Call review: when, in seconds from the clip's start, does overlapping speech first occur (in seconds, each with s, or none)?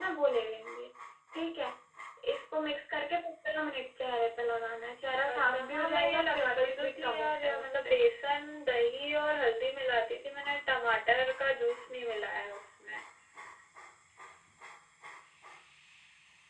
5.3 s